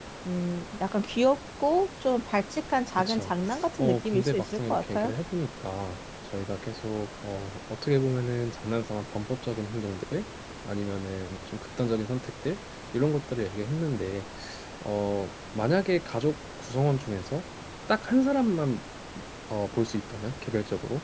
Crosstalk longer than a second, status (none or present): present